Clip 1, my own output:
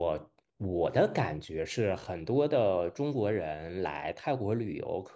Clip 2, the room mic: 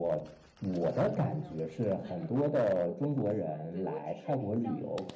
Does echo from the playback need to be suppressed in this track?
Yes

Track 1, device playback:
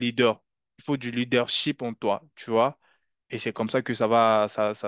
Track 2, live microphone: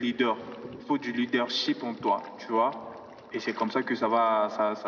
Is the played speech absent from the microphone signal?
No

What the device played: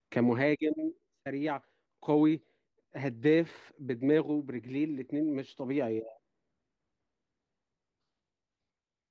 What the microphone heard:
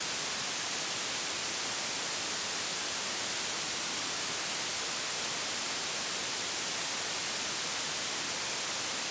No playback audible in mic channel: Yes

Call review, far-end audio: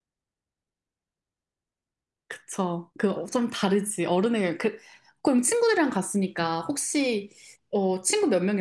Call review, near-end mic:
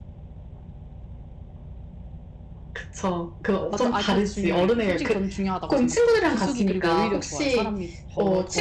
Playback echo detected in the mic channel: Yes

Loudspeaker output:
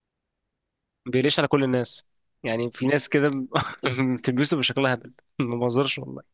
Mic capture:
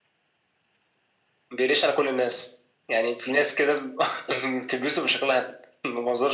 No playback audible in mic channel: No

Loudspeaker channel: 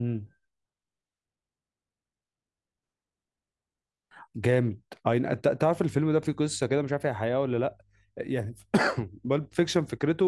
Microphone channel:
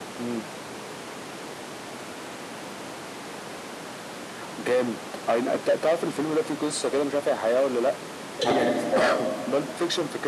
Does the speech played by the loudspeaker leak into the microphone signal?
Yes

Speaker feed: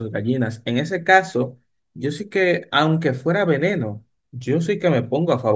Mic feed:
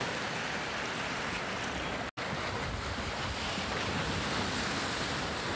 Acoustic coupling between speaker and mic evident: No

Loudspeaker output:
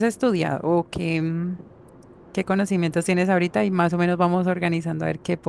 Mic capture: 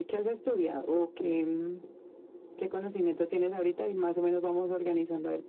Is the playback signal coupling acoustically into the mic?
Yes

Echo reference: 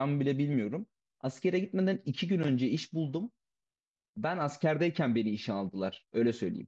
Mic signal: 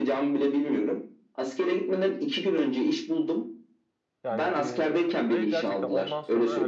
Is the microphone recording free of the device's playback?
No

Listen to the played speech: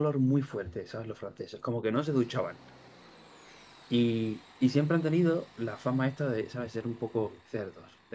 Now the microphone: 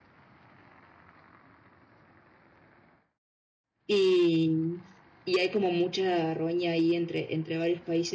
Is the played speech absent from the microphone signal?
Yes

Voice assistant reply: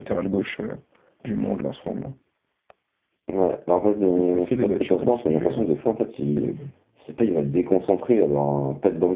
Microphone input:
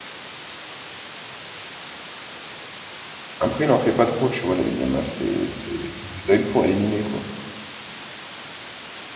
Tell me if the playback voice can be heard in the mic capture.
No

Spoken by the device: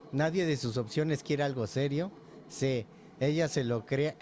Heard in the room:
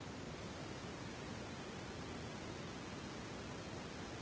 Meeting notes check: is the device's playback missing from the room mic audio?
Yes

